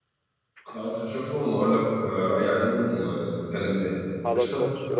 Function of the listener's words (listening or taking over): taking over